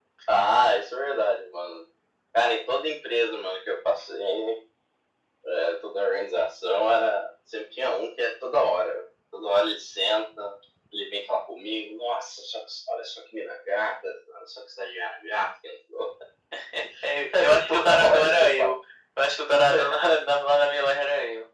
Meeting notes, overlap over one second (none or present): present